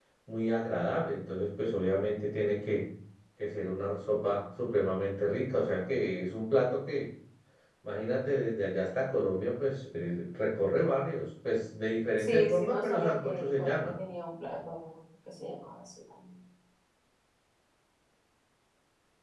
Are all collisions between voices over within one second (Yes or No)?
No